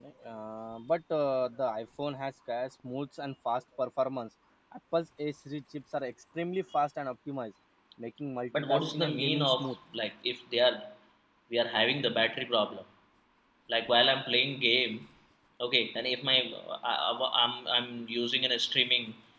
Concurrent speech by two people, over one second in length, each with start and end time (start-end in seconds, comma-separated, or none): 8.5-9.7